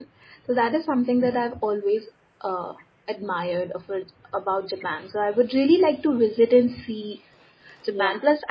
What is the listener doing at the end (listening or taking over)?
listening